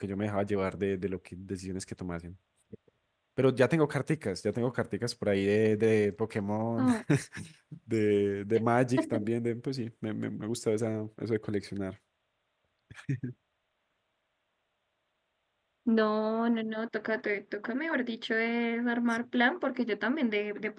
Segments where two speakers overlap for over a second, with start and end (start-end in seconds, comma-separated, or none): none